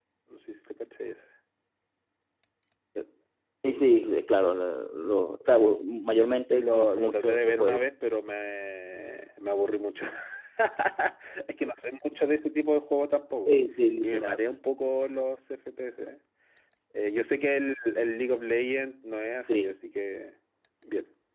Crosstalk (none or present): present